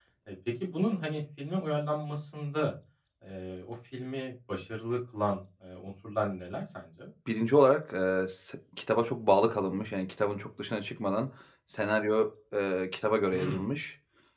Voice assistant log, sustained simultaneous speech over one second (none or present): none